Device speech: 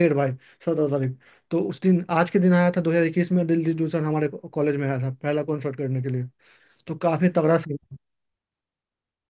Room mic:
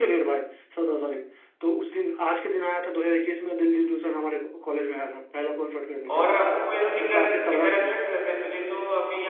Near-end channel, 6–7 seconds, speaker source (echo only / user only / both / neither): both